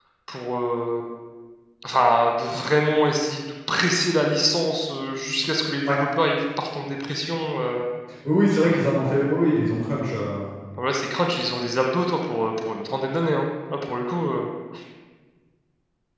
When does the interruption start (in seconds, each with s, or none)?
none